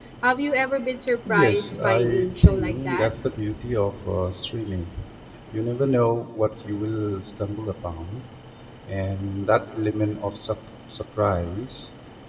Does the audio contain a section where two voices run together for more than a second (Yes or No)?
Yes